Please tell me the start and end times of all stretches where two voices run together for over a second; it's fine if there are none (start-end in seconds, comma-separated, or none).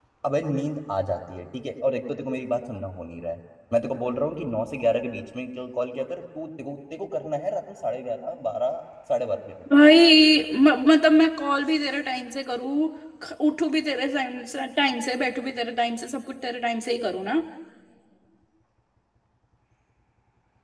none